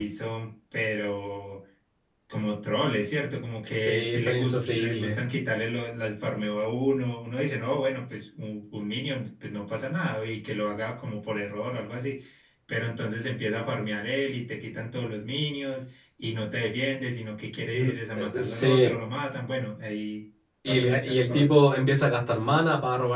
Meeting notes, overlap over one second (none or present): present